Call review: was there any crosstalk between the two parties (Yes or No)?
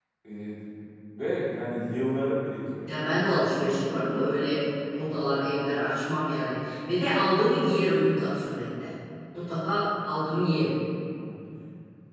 No